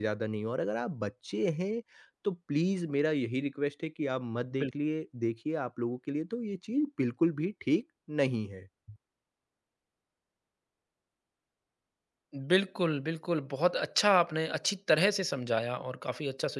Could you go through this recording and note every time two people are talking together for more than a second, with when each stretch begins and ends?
none

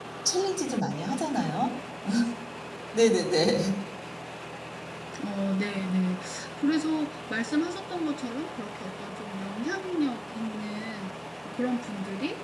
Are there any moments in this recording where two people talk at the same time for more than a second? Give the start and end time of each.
none

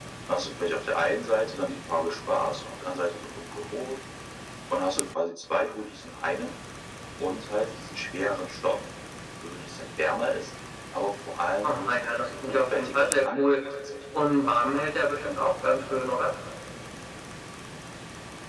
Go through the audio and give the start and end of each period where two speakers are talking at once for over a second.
11.6-13.6

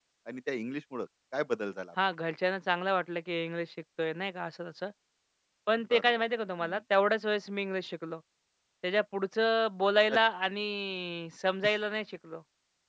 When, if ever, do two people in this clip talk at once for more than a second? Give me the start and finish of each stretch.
none

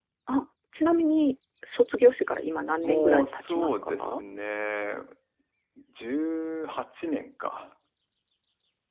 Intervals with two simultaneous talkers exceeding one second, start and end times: 2.8-4.2

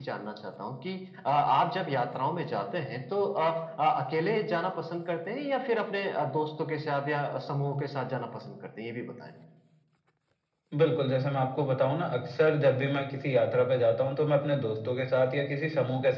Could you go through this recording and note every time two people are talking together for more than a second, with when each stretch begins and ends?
none

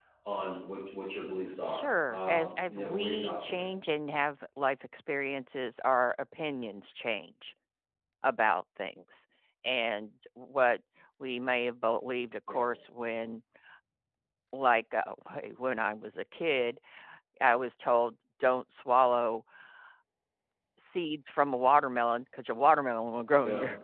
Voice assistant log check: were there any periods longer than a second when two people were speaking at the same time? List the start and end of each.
1.6-3.6

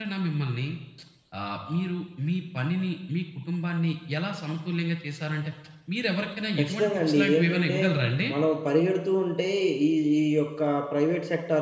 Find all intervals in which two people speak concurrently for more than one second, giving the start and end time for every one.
6.6-7.8

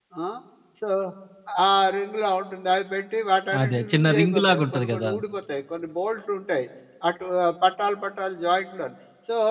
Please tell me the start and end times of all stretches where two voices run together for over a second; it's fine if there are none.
3.6-5.1

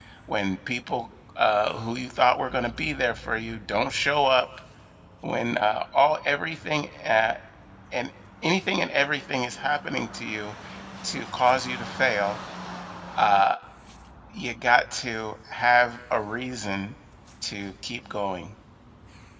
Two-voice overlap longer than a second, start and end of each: none

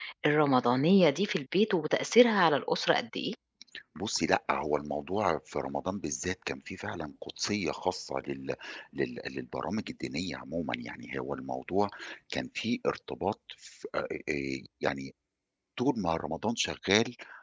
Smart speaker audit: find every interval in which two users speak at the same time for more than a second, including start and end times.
none

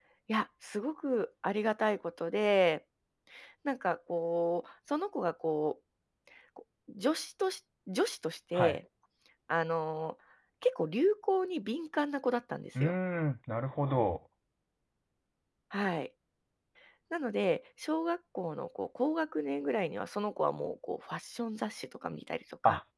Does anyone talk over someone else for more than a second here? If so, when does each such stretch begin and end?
none

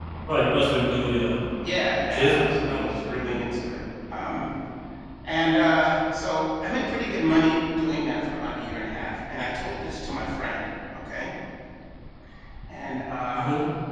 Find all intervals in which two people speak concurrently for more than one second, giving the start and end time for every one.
2.1-3.3

